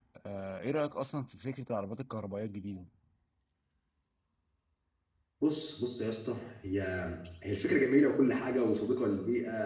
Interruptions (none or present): none